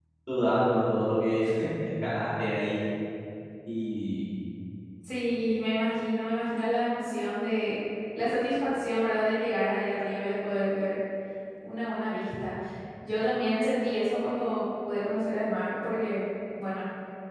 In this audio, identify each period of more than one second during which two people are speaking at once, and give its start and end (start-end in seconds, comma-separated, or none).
none